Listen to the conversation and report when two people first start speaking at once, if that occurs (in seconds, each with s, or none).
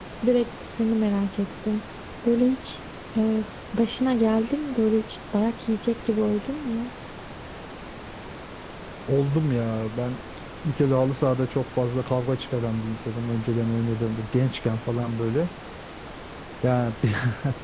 none